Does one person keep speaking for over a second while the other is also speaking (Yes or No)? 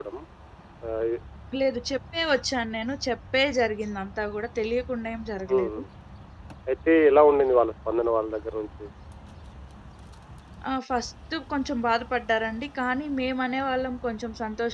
No